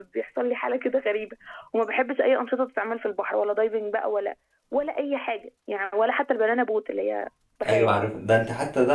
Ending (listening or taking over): taking over